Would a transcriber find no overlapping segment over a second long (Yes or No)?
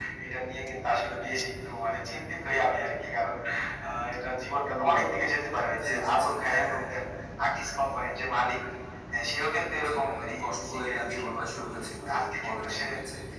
No